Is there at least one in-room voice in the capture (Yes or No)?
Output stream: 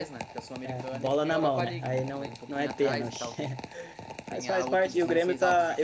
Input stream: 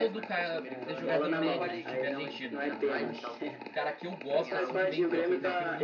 Yes